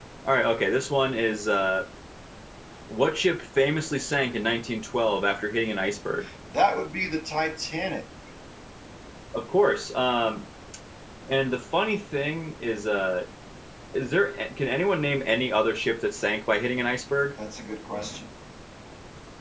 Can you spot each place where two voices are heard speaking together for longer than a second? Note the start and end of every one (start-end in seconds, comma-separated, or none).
none